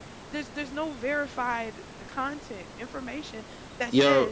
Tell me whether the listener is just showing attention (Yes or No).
Yes